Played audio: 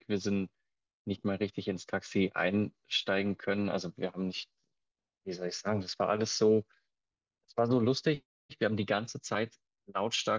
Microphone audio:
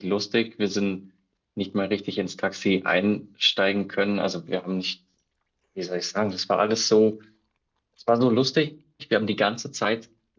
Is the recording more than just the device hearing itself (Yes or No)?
No